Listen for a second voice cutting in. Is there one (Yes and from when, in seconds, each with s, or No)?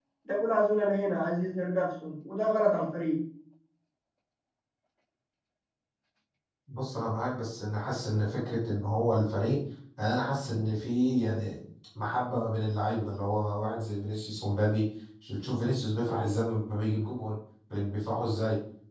No